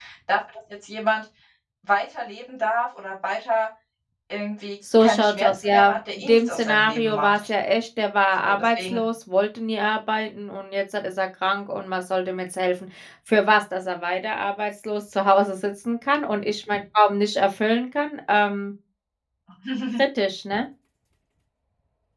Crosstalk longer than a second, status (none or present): present